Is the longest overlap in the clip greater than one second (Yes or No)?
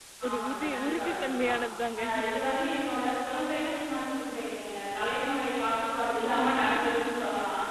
Yes